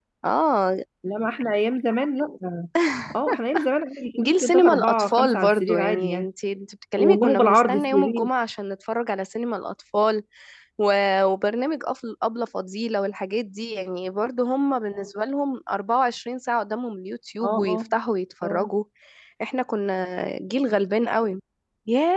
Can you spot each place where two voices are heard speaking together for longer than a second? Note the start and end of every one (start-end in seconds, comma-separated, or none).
4.2-6.3, 7.0-8.3